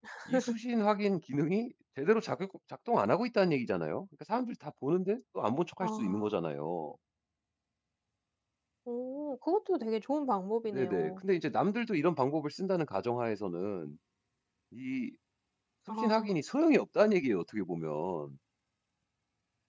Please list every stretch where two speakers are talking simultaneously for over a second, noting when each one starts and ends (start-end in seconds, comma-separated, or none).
none